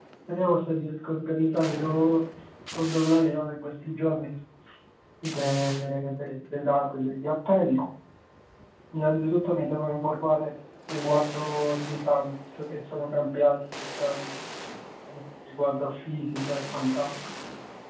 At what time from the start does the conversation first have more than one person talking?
none

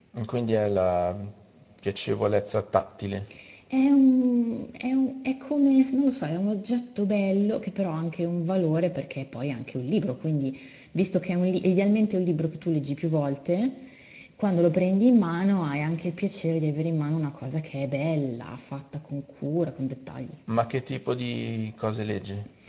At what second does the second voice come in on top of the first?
none

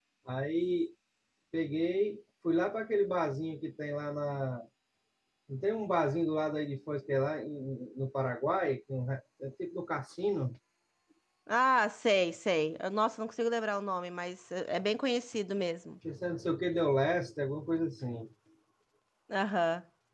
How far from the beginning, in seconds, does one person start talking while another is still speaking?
none

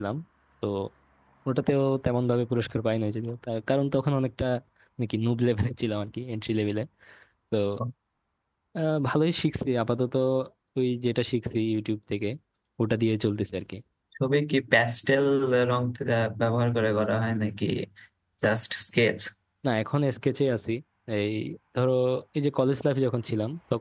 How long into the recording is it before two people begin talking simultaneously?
none

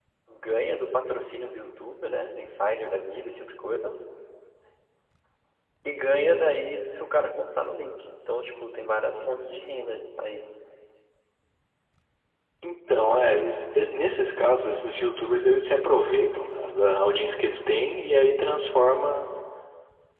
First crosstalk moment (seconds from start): none

